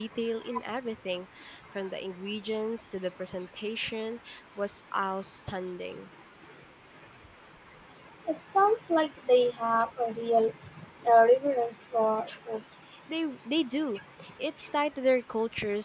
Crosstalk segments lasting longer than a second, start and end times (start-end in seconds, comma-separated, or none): none